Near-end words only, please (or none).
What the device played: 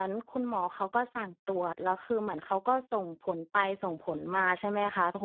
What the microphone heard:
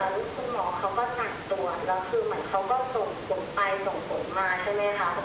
none